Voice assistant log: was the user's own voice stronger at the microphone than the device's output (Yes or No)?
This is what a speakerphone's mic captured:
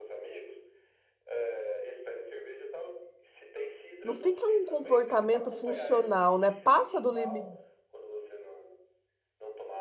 Yes